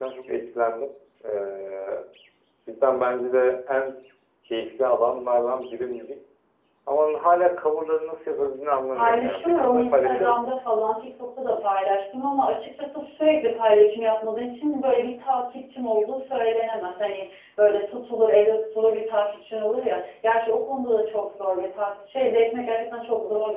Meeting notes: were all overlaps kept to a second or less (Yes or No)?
No